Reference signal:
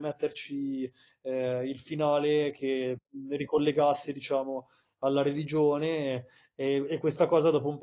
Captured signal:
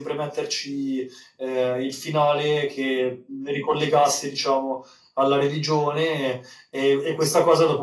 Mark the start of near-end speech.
none

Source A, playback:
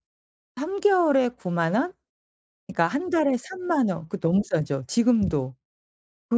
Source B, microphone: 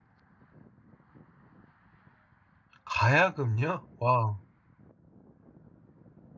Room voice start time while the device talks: 2.8 s

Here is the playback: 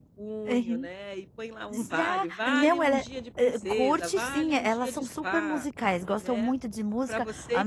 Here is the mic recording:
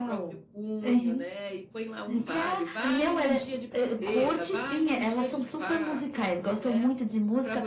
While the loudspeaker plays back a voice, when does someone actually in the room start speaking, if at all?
none

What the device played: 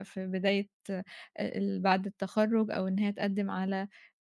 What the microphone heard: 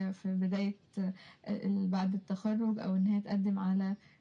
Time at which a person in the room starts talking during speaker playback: none

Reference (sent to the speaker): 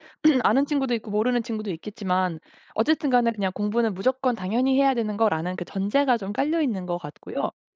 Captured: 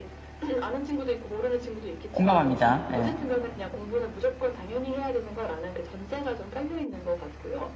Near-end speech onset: 2.1 s

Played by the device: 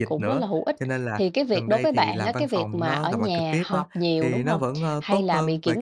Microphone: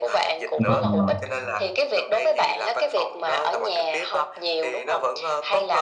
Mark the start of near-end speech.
0.6 s

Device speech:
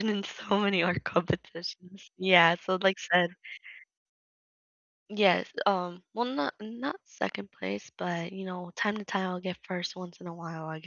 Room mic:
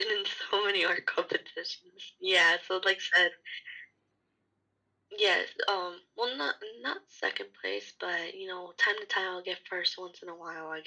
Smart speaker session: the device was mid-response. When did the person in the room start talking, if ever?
none

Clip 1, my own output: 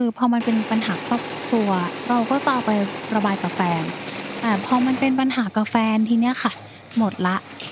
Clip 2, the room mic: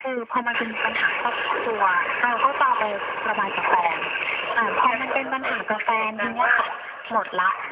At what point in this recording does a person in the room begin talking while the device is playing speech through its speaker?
4.8 s

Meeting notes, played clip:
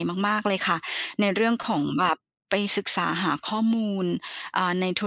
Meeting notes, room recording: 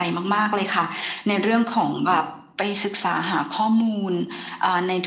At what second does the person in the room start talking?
none

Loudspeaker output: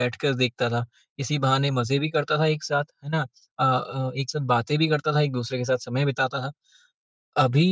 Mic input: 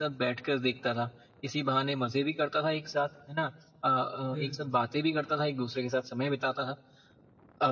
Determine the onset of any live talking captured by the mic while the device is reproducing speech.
4.3 s

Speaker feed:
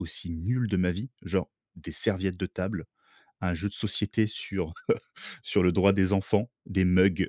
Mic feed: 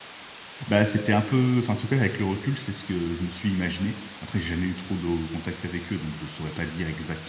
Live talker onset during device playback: 0.7 s

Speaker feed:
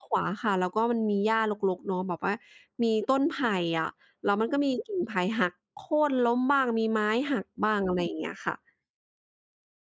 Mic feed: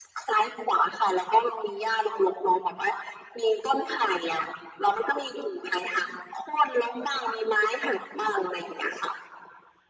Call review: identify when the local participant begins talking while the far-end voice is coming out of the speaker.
none

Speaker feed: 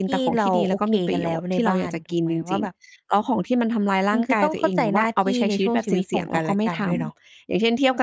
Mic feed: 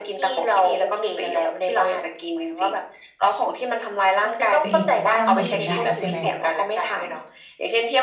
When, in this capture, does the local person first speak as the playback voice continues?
4.6 s

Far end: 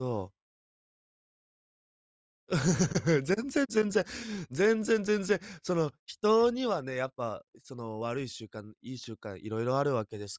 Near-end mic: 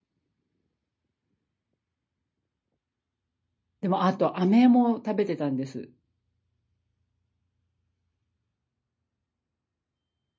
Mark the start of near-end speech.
3.8 s

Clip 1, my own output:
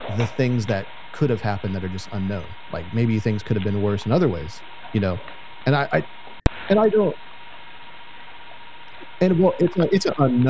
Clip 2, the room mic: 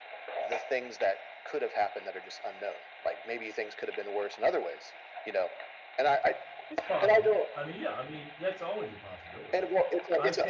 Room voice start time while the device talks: 6.7 s

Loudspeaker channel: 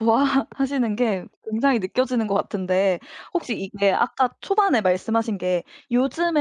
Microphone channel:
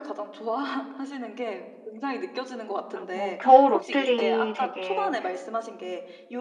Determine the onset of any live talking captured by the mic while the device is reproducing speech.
2.9 s

